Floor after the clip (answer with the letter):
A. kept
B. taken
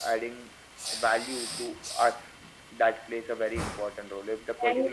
A